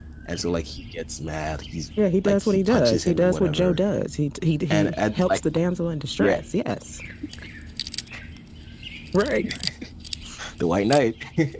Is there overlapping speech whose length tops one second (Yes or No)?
Yes